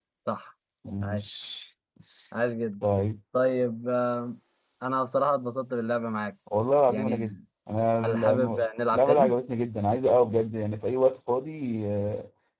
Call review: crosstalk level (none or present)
present